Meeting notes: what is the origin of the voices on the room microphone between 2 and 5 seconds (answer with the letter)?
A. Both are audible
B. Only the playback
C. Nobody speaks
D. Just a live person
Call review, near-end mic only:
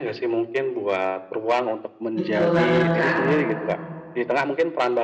A